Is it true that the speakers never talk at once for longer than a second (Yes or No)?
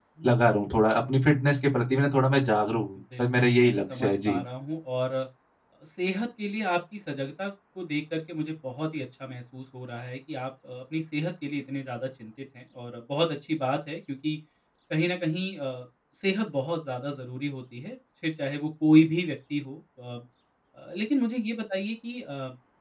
No